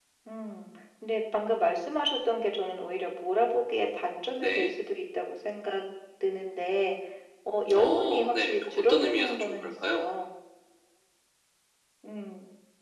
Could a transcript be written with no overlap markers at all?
No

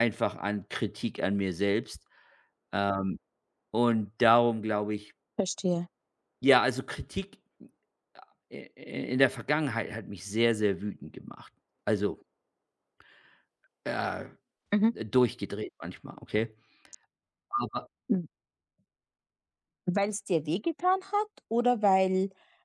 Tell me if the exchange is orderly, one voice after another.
Yes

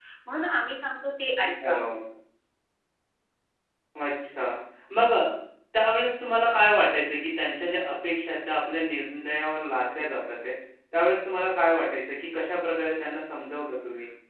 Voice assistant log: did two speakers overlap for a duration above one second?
No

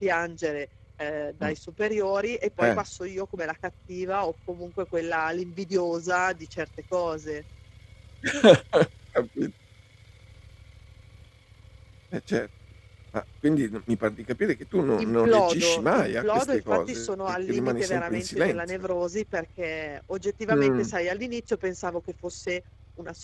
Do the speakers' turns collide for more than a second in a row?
Yes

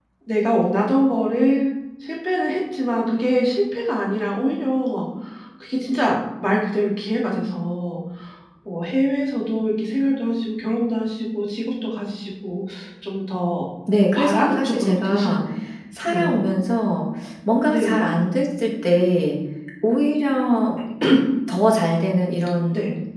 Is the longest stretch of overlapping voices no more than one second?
No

